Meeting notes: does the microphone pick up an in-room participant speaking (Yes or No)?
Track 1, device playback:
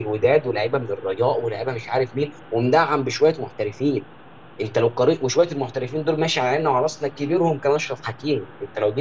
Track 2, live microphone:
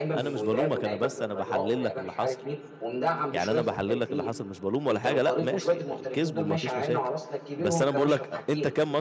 Yes